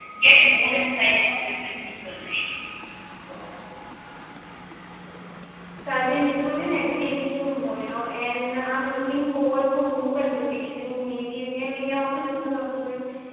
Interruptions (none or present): none